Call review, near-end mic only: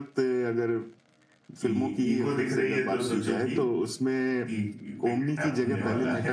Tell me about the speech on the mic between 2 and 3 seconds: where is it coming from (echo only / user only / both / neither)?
both